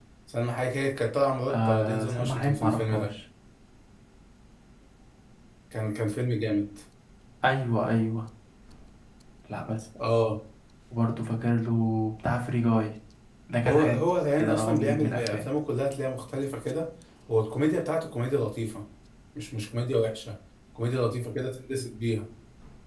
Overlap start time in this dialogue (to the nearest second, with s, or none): 2 s